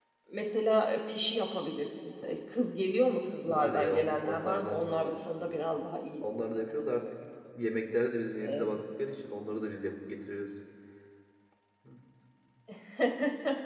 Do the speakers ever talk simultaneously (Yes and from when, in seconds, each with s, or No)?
Yes, from 3.5 s